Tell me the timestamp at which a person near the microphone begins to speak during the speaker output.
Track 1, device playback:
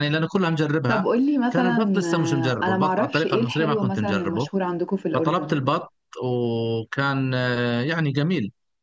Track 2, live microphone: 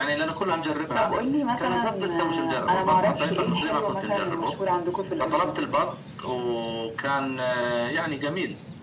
none

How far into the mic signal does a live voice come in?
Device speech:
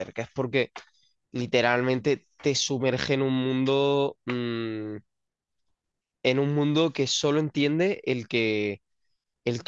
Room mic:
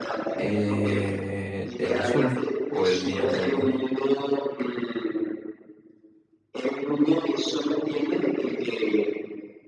0.3 s

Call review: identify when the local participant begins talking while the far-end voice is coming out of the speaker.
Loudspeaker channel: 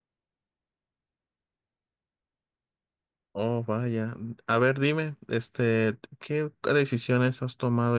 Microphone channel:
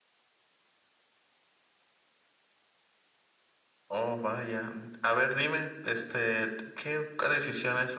none

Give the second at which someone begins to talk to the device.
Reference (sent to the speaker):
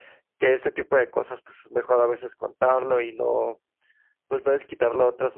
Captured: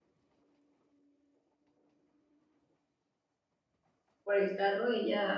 4.2 s

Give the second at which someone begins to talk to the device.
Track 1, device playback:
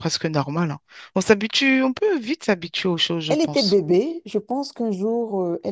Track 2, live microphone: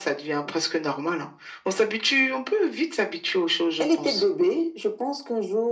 none

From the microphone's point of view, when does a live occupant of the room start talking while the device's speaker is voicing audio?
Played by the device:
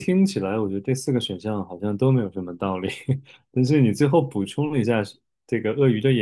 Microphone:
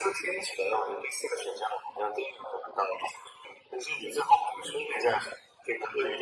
none

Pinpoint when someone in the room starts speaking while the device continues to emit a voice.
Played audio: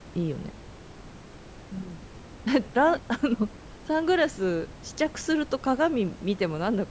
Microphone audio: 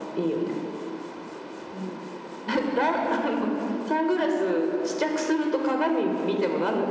none

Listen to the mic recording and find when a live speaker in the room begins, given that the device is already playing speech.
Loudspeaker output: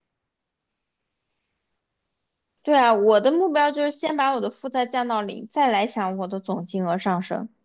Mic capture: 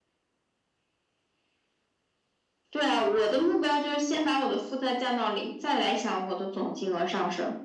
none

